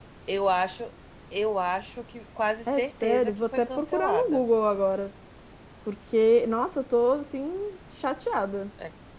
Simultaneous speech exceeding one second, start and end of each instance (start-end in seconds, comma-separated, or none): 2.7-4.4